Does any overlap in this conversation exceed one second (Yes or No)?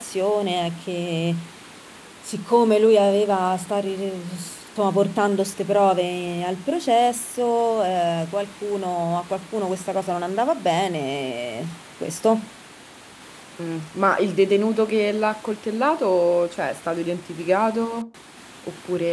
No